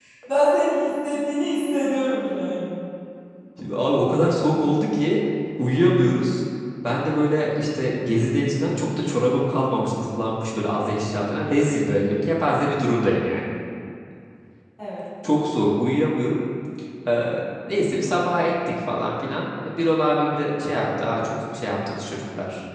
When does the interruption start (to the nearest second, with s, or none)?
none